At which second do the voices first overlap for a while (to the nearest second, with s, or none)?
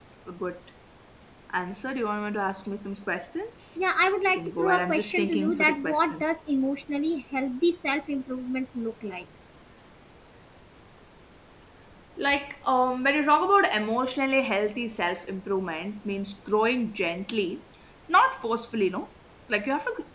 4 s